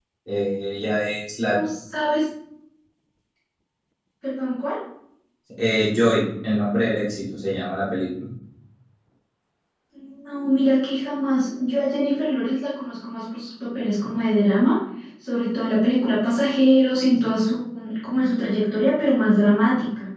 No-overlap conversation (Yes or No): Yes